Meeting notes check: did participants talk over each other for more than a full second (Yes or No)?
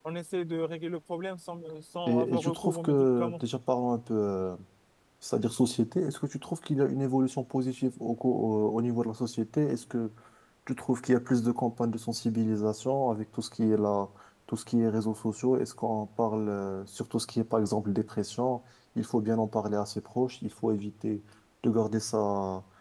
Yes